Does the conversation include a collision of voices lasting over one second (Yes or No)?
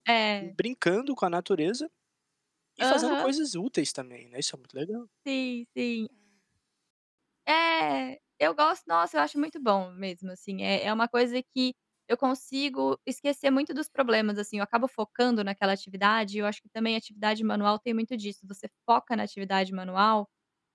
No